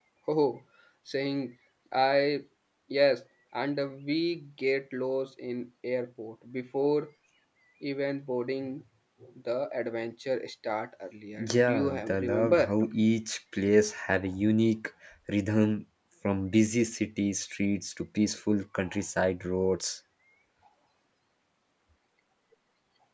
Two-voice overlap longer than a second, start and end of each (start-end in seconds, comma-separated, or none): 11.4-12.7